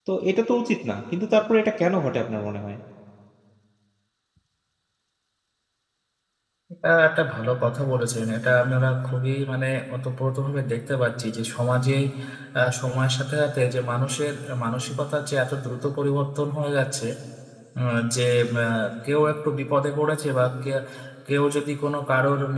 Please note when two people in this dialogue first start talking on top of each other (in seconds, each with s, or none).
none